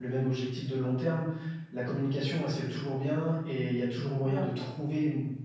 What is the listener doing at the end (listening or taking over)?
listening